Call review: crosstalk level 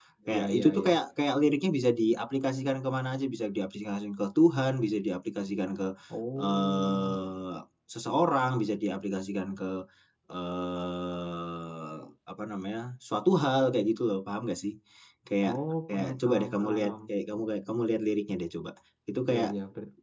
present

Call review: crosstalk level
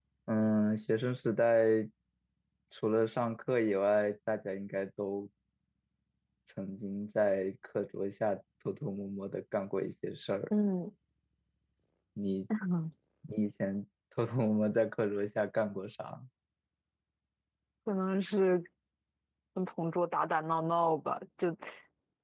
none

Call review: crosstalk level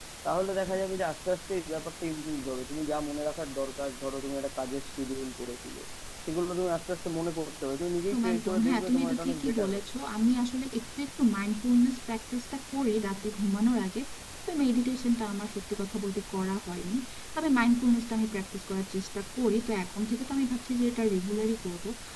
present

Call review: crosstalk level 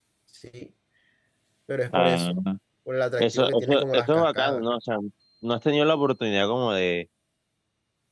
present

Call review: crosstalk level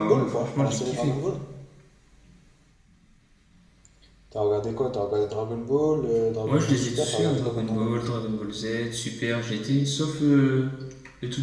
present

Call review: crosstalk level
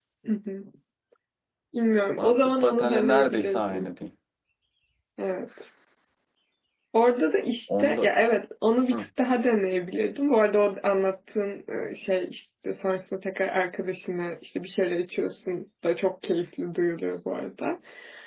present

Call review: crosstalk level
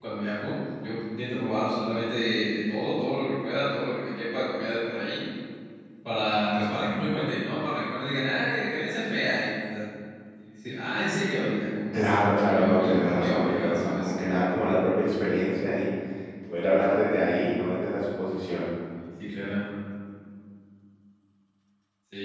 present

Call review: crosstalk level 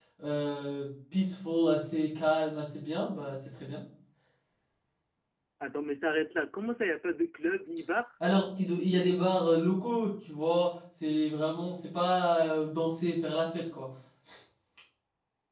none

